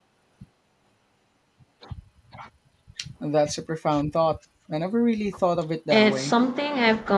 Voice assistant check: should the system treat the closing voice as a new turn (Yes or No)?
Yes